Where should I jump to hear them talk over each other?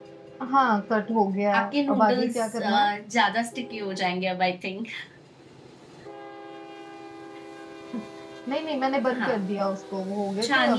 1.5 s

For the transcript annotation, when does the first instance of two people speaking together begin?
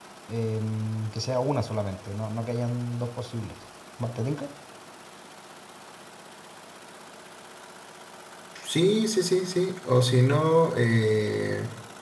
none

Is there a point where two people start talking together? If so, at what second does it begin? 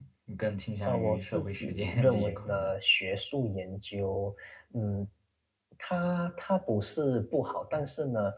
0.8 s

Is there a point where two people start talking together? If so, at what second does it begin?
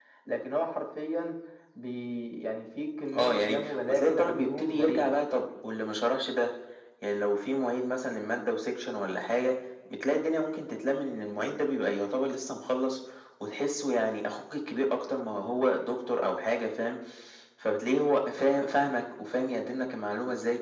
3.1 s

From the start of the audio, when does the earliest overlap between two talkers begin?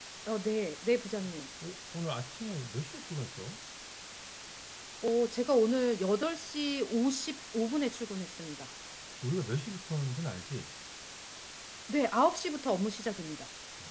none

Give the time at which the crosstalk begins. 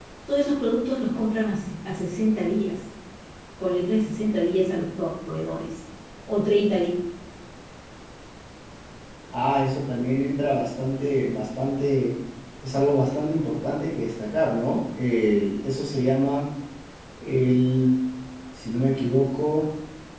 none

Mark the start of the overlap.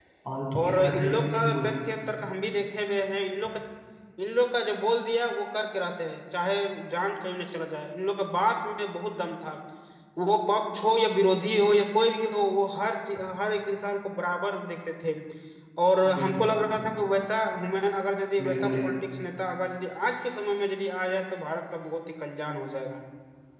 0.6 s

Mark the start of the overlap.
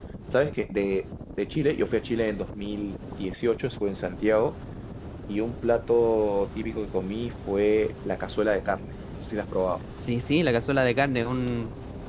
none

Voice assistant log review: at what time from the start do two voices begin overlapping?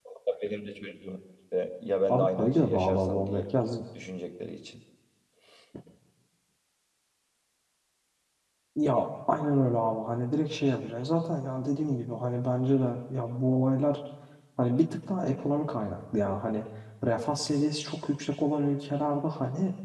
2.1 s

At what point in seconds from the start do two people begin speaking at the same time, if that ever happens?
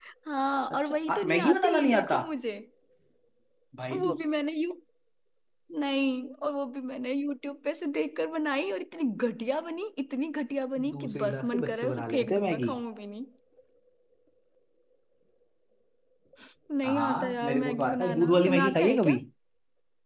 0.7 s

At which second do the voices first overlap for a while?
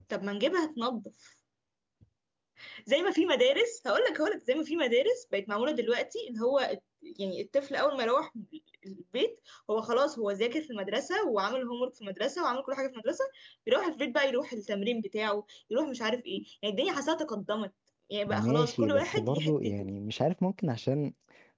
18.3 s

